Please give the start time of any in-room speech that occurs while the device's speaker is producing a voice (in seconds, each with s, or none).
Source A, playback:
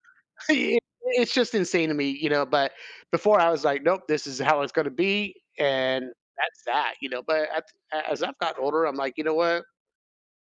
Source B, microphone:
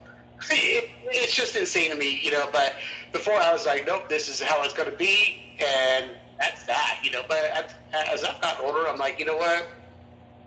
none